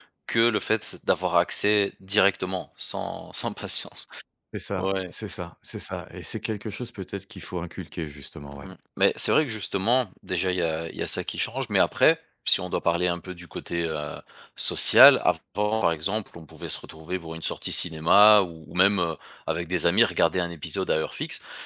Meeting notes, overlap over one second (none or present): none